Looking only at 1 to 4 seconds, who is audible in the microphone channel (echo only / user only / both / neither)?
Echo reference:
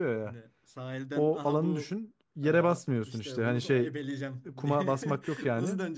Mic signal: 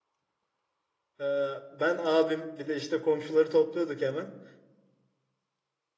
user only